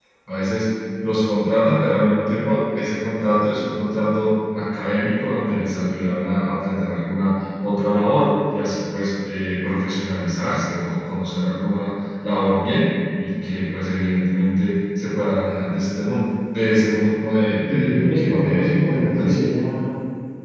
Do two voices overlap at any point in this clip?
Yes, from 17.7 s

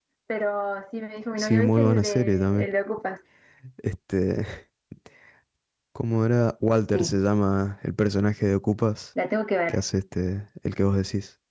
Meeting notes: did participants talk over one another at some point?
Yes, from 1.4 s

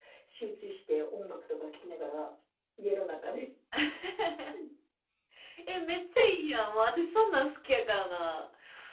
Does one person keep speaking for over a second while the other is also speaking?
No

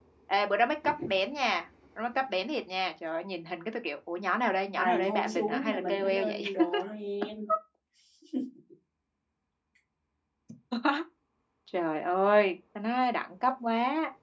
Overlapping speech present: Yes, from 4.7 s

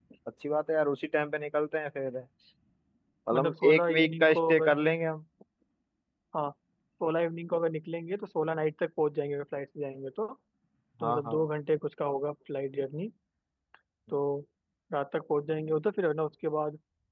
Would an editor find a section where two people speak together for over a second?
Yes, from 3.3 s

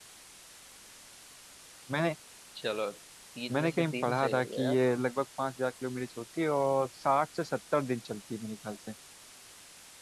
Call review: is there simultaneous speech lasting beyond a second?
Yes, from 3.5 s

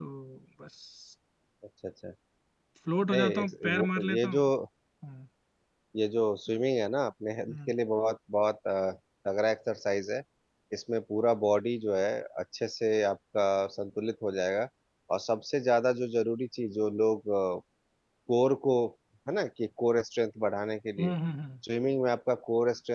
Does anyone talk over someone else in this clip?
Yes, from 3.1 s

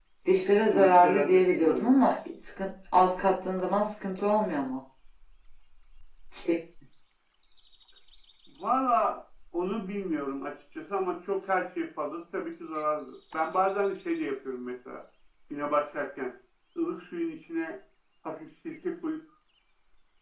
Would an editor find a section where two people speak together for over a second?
Yes, from 0.7 s

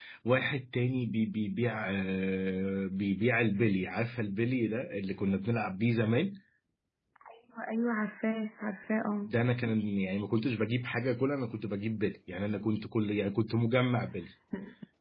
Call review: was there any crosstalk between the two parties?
No

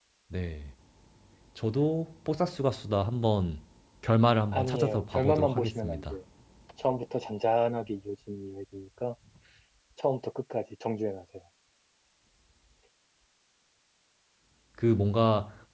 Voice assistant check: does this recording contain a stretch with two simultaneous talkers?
Yes, from 4.5 s

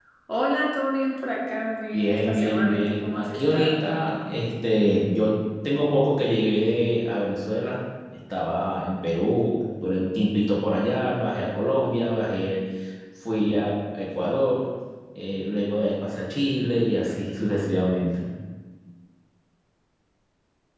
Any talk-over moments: Yes, from 1.9 s

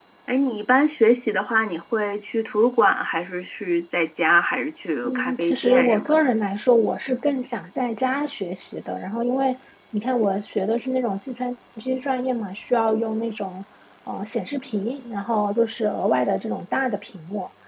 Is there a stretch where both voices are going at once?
Yes, from 5.0 s

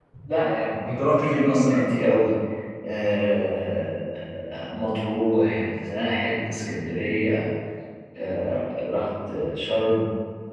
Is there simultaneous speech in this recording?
Yes, from 0.8 s

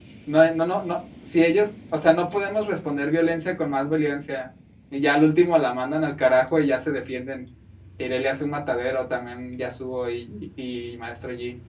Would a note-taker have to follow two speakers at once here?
No

